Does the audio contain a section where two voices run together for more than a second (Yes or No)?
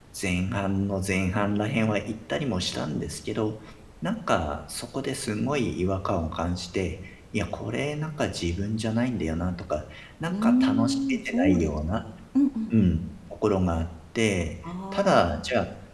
Yes